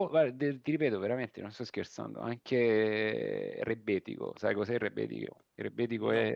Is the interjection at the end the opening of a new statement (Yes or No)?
No